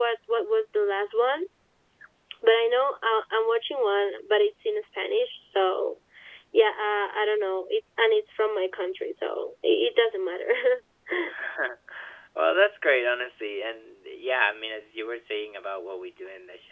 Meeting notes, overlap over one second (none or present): none